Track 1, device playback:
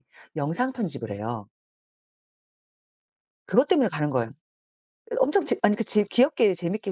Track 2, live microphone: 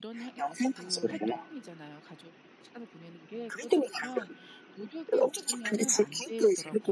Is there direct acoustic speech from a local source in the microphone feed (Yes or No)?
Yes